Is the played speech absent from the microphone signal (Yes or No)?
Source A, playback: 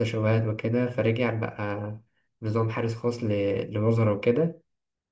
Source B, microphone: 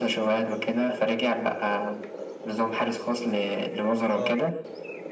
No